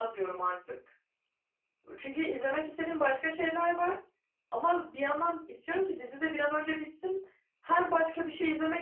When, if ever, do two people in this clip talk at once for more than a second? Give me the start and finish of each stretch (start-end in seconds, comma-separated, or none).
none